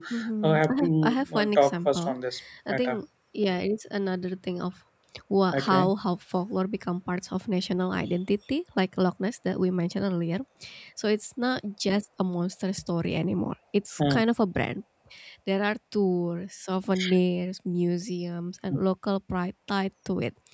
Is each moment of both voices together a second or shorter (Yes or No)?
No